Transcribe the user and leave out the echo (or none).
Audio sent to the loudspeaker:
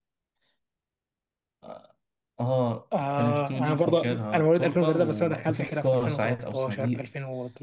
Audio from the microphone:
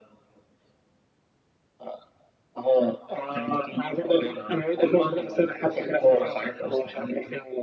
none